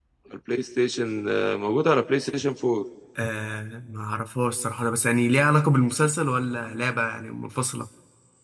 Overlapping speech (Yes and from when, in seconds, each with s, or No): No